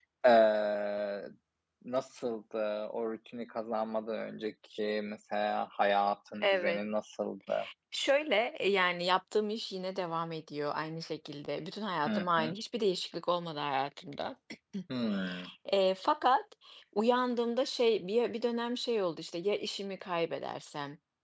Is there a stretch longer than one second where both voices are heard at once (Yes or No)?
No